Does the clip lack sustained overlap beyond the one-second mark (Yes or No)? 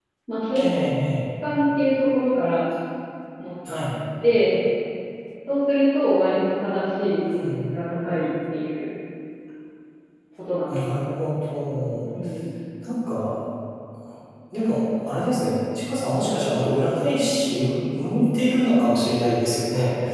Yes